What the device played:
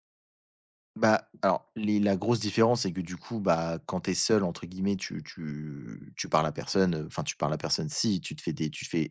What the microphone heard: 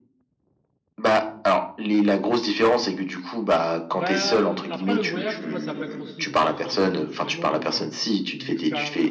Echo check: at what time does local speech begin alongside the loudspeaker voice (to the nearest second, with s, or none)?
4 s